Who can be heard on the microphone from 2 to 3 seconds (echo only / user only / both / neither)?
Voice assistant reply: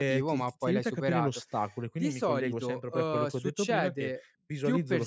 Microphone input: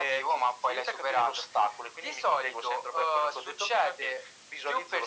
echo only